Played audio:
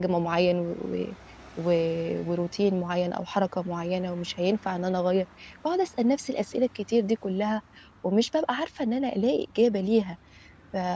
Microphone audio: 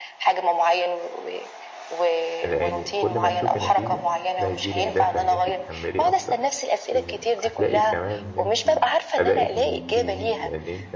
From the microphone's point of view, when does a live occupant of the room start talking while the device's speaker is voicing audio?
2.4 s

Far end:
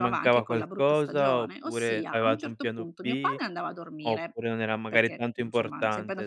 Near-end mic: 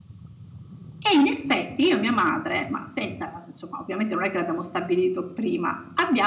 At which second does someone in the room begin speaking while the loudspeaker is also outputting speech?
1.0 s

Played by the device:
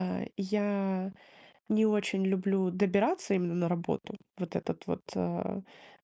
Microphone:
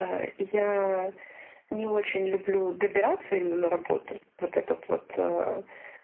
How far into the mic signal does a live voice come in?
none

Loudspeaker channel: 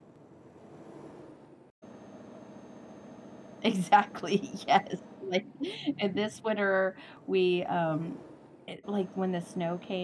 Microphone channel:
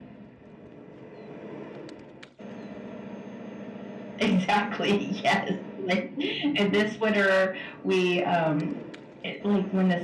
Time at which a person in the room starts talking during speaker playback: none

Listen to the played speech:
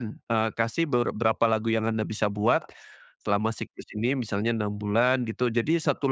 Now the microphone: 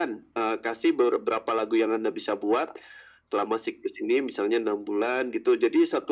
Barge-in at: none

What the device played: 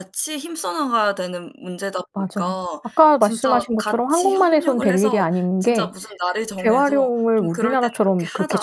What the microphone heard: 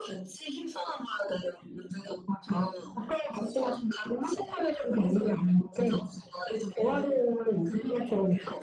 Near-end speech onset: none

